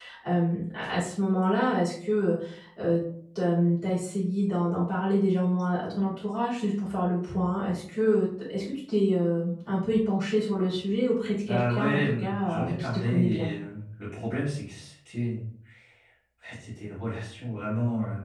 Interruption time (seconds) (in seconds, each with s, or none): 11.4 s